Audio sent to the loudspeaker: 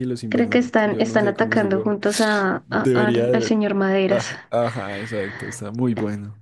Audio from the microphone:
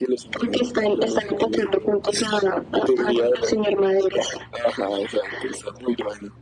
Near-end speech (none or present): none